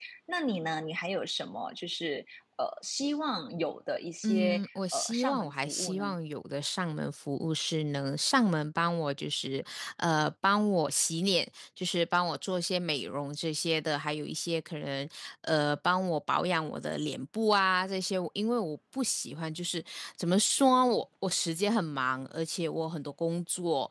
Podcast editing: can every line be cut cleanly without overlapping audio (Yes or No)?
No